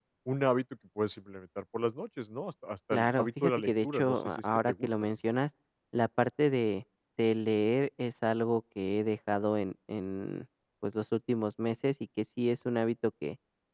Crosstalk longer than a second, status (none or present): present